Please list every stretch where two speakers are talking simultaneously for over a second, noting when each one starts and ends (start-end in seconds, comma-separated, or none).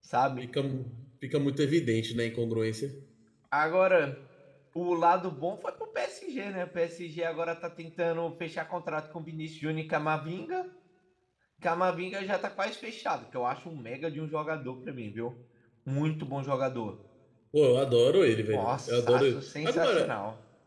18.5-20.2